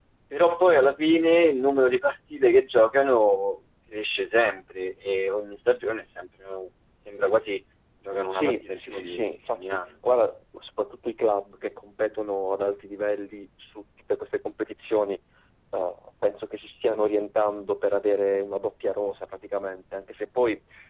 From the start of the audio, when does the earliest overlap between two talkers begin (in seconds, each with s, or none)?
8.3 s